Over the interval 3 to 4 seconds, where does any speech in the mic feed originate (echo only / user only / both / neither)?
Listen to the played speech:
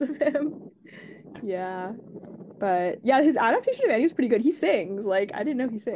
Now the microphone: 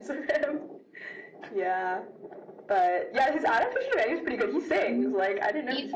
echo only